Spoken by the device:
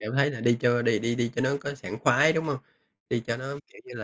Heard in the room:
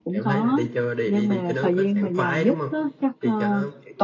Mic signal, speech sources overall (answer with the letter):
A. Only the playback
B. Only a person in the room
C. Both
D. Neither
C